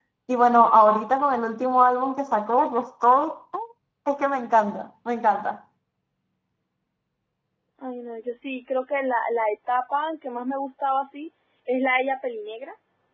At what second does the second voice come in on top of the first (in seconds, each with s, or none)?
none